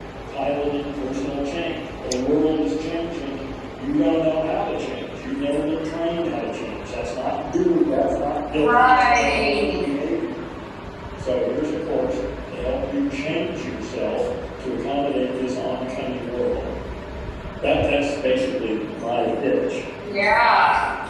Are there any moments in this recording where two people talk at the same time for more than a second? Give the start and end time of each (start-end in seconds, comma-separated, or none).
8.5-9.8